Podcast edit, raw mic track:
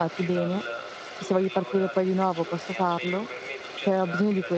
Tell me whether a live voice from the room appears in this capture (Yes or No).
Yes